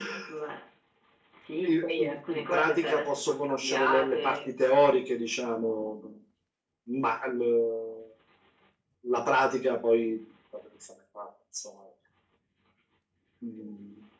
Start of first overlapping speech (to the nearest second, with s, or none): 2 s